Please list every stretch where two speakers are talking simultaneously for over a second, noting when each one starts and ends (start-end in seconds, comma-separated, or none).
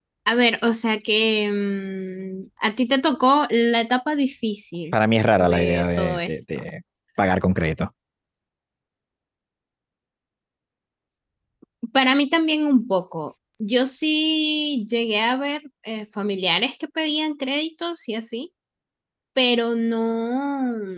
5.4-6.6